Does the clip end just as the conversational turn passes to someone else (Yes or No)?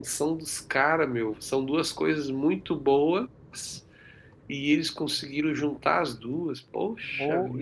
Yes